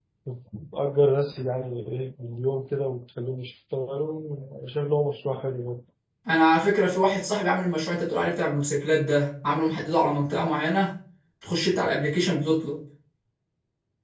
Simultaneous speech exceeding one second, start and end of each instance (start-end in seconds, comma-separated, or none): none